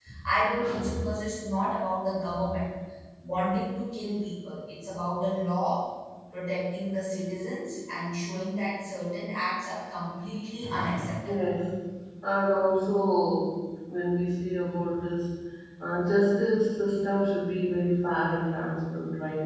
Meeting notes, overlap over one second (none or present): none